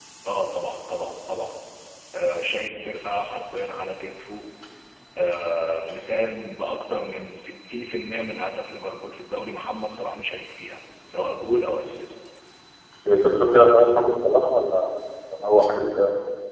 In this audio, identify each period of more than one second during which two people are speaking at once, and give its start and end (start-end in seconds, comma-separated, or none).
none